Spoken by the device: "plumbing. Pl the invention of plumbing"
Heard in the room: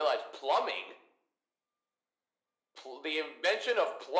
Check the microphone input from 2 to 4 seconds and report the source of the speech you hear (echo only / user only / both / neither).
echo only